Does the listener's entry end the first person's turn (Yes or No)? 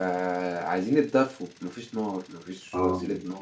No